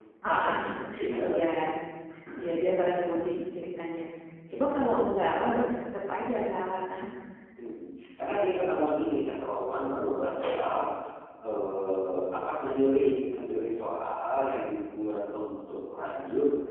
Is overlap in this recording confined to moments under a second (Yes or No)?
Yes